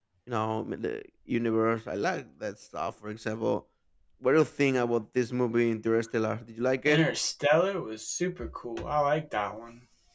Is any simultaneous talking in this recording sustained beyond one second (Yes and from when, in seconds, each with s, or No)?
No